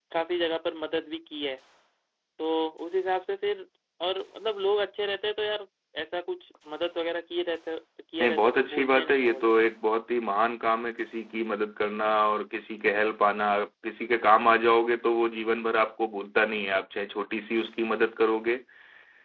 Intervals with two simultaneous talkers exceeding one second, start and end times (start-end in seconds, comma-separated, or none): 8.2-9.5